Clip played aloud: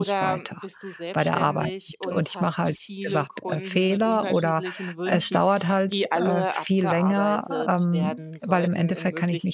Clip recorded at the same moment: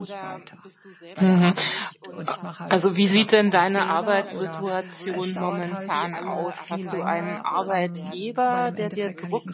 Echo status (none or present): present